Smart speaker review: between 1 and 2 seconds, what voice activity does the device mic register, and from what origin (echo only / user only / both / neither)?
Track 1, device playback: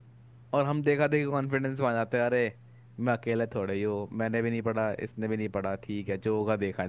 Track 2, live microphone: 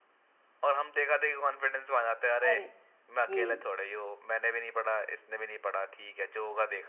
echo only